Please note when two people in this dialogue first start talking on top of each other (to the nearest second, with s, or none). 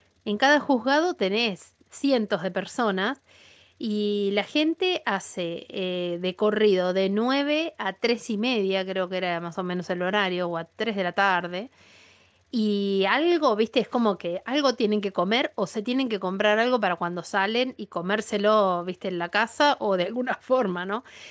none